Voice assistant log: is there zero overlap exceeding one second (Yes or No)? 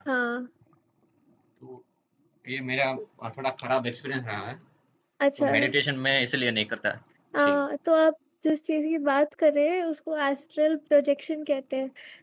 Yes